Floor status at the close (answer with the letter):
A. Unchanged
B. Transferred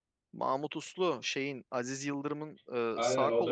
B